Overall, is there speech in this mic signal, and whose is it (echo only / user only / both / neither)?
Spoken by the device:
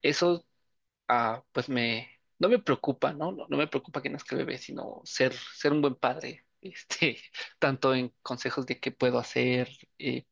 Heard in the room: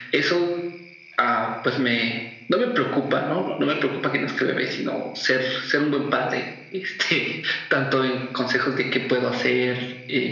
echo only